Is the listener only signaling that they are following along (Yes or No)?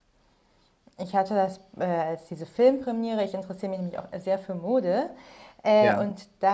Yes